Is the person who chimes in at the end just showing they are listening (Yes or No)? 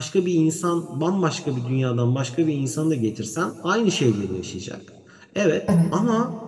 Yes